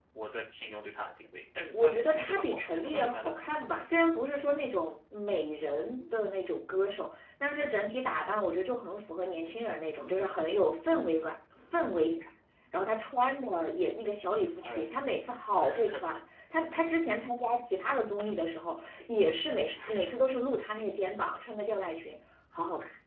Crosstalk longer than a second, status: present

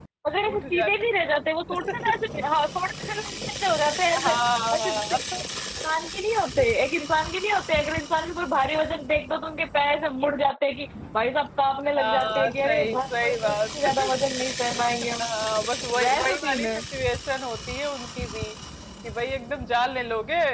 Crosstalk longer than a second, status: present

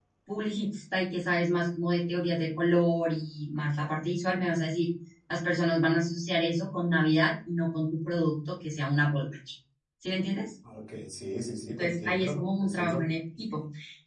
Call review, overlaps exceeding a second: present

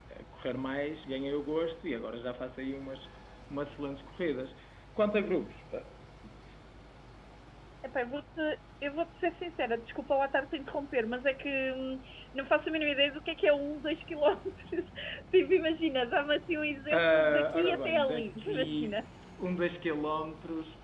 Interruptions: present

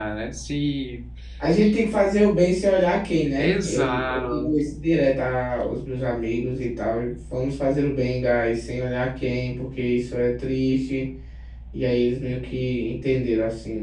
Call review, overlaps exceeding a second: present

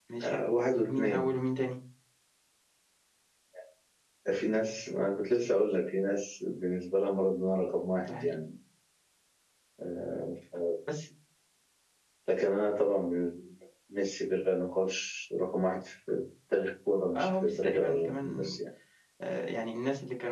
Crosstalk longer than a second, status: present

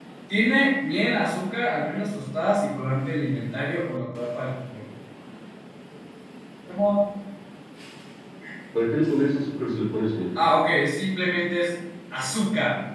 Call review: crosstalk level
none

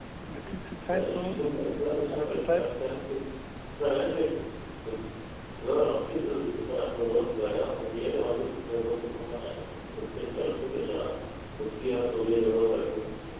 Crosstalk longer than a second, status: present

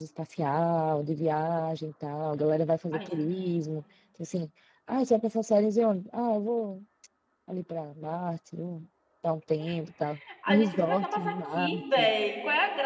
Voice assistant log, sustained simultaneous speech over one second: present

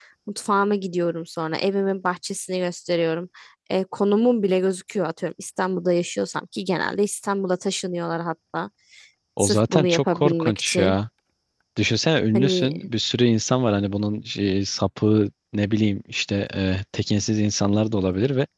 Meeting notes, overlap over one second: present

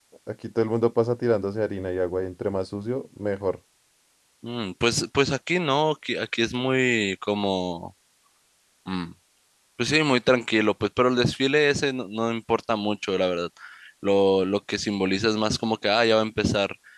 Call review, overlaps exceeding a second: none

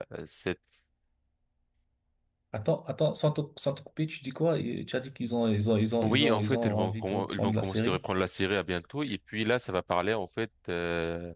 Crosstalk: present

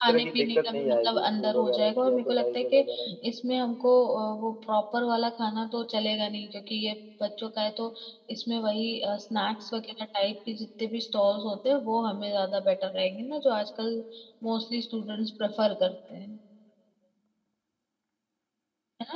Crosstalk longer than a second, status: present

